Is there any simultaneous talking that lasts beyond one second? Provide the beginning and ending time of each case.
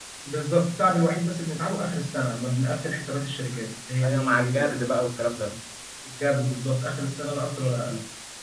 4.0-5.3

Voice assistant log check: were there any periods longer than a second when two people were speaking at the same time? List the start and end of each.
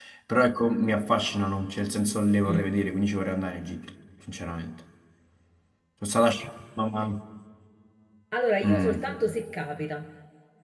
none

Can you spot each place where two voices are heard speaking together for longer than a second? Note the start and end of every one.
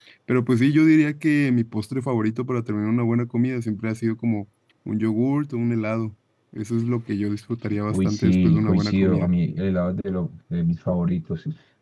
7.9-9.3

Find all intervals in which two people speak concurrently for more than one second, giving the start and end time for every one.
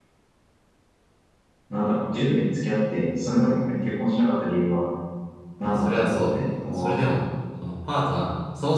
5.6-7.0

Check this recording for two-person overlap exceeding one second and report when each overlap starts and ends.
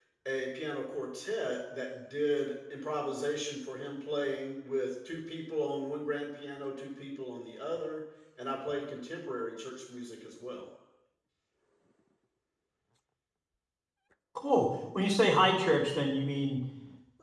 none

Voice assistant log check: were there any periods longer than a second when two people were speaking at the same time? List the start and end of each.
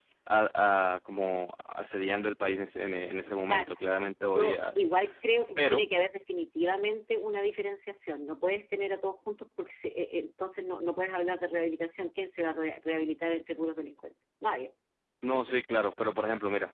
none

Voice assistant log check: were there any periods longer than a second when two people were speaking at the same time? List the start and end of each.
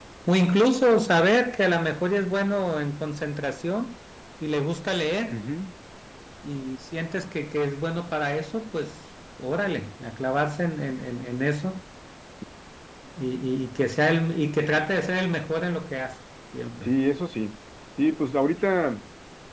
none

